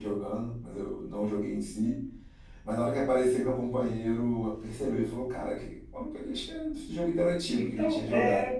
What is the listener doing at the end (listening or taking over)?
taking over